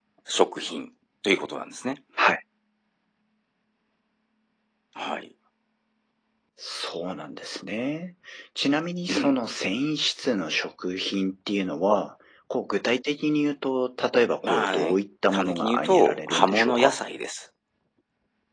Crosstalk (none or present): present